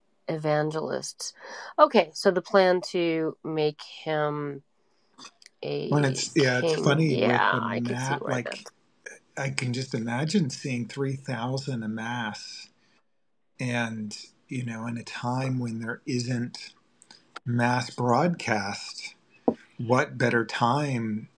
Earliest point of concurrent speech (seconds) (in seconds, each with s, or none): 5.9 s